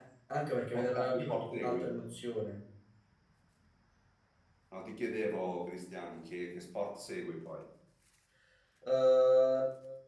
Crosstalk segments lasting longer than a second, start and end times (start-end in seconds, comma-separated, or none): 0.7-2.1